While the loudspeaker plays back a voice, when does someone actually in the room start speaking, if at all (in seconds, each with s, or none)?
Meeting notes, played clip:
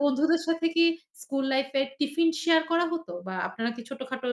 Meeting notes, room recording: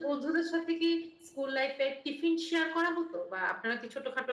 none